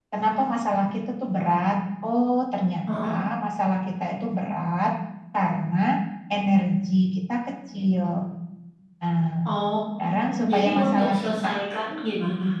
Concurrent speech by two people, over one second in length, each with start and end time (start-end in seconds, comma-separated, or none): 10.0-11.4